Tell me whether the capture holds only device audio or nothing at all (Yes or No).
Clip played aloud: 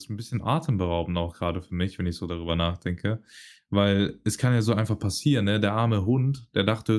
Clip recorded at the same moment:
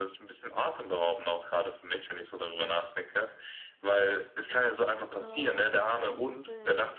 No